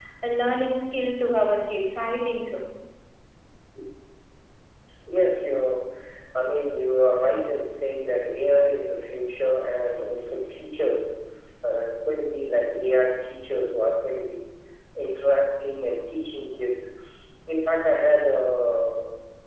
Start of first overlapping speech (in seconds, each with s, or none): none